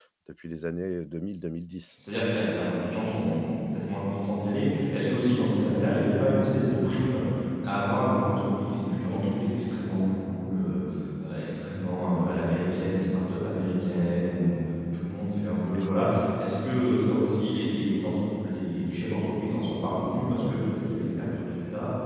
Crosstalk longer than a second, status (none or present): none